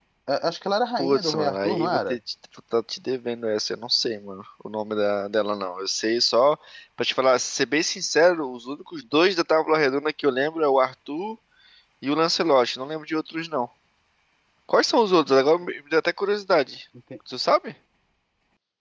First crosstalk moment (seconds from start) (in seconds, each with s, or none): 1.0 s